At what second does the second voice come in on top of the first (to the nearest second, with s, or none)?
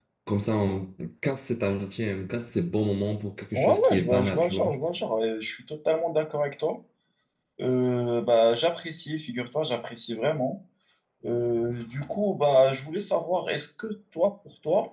4 s